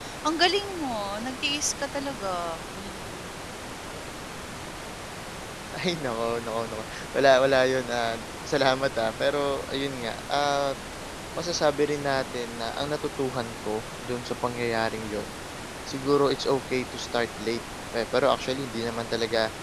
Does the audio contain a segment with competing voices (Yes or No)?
No